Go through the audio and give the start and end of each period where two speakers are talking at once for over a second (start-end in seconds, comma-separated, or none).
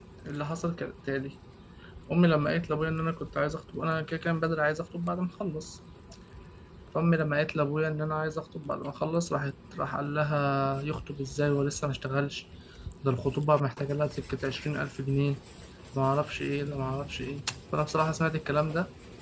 none